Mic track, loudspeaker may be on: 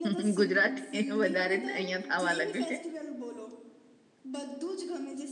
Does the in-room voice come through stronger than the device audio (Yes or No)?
Yes